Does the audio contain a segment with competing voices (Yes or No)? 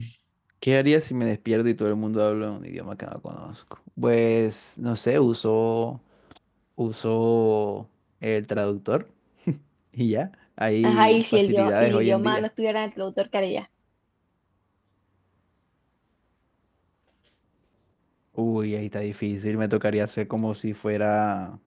Yes